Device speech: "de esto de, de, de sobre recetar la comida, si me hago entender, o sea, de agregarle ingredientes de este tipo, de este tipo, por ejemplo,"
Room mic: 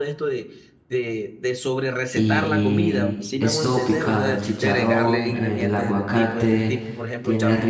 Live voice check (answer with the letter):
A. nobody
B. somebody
B